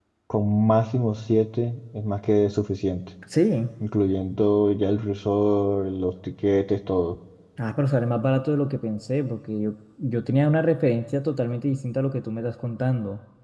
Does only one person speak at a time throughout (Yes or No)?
Yes